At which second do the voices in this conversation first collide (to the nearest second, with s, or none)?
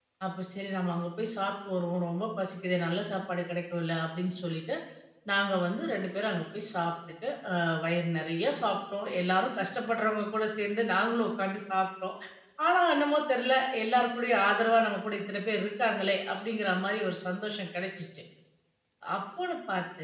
none